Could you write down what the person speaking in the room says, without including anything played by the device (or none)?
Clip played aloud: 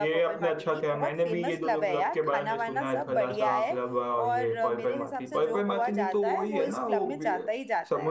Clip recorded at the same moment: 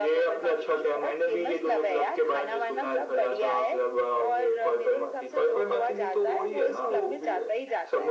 none